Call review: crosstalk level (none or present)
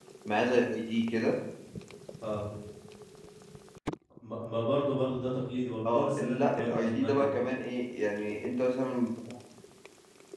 present